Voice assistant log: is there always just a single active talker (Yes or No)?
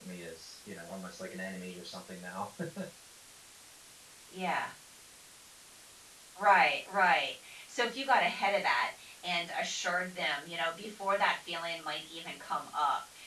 Yes